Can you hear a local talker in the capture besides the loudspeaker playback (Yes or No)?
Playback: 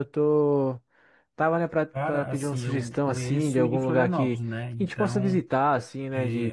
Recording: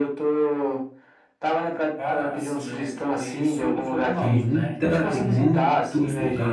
Yes